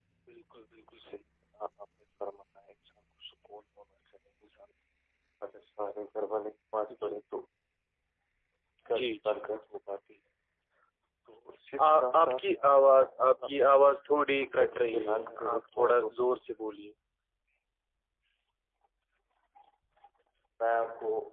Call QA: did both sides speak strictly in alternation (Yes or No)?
No